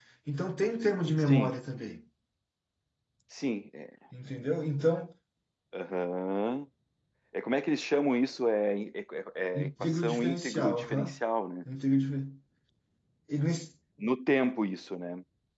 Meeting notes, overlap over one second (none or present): present